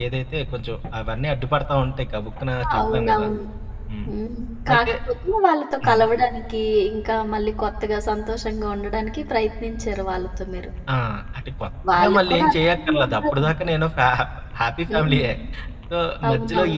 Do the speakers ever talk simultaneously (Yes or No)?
Yes